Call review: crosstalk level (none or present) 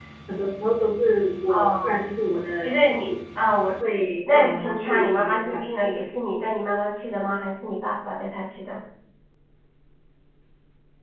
present